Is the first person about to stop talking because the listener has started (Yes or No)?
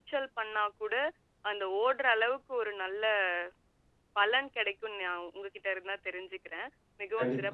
Yes